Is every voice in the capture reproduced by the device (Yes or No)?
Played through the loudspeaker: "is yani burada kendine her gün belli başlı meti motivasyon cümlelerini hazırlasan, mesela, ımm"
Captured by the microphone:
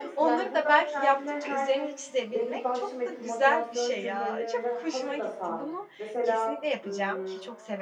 No